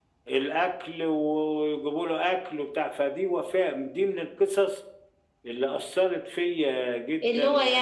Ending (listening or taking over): taking over